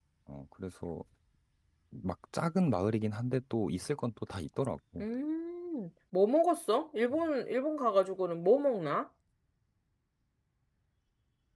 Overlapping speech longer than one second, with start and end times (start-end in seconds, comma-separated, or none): none